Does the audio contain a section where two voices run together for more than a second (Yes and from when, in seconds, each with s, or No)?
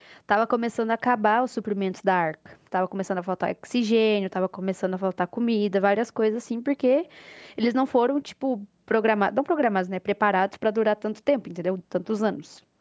No